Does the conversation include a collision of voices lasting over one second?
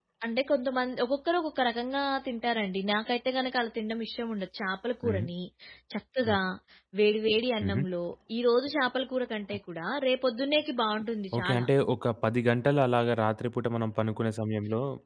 No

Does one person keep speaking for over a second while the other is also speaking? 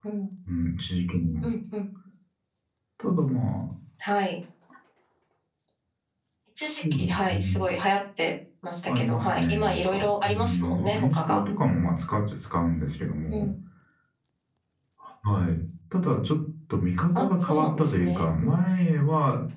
Yes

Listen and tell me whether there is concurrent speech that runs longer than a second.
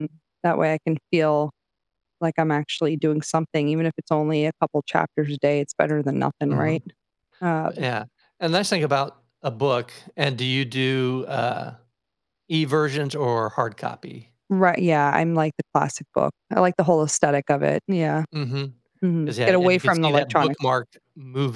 Yes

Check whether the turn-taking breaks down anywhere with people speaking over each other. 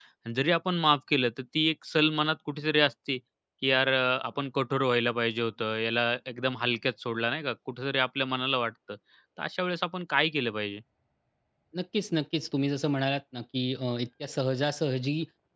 No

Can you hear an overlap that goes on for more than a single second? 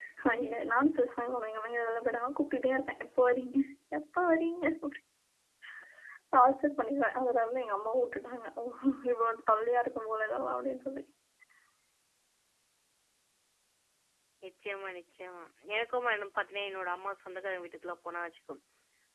No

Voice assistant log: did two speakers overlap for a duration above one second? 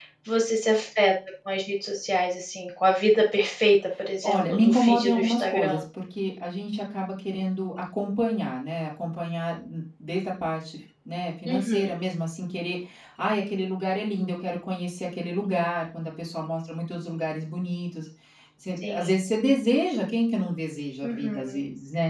Yes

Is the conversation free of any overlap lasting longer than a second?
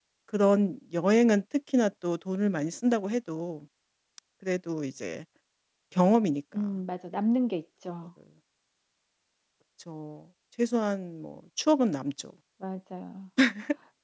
Yes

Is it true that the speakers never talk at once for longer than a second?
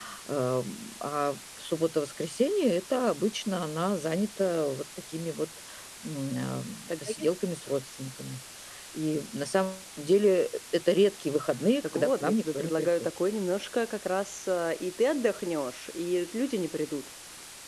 No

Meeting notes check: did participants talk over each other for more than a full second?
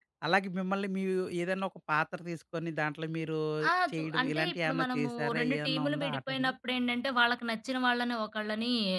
Yes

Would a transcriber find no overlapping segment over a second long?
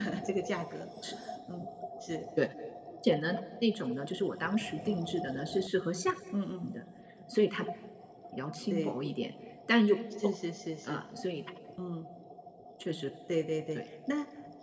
Yes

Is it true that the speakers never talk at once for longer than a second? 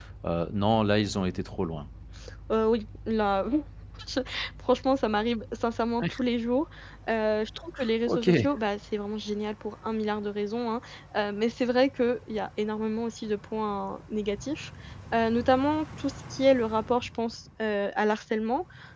Yes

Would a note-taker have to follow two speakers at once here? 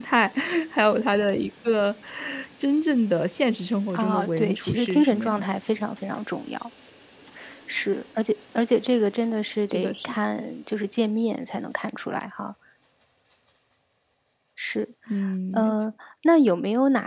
Yes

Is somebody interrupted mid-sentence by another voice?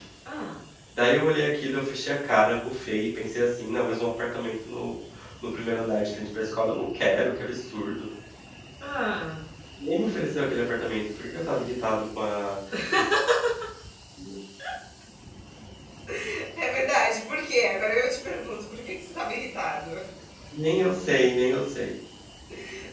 No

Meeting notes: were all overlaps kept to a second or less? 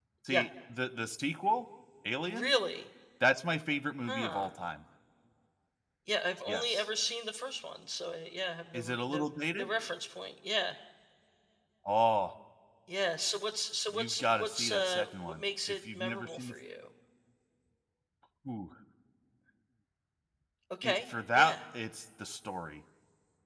No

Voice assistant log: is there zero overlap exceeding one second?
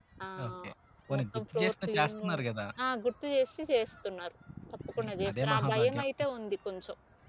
No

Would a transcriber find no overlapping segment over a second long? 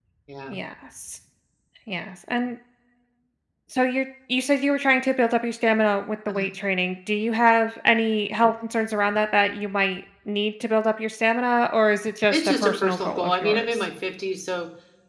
No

